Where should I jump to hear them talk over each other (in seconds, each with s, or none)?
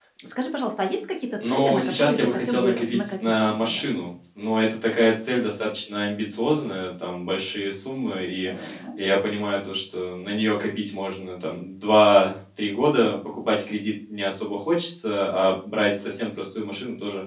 1.4 s